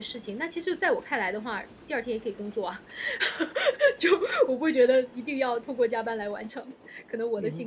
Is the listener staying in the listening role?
No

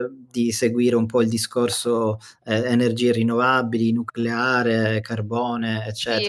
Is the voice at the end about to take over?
Yes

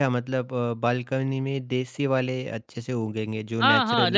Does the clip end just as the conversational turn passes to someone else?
Yes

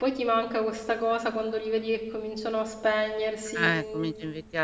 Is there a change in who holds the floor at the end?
Yes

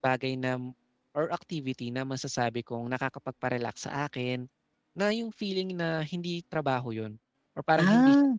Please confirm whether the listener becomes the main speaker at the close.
No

